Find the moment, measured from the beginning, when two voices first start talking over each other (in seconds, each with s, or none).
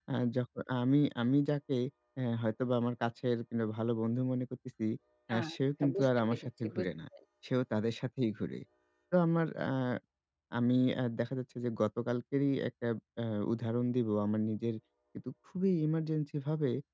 5.4 s